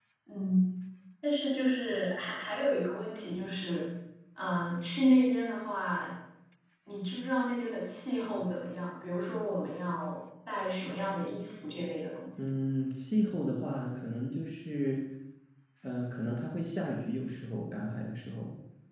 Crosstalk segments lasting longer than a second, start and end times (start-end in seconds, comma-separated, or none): none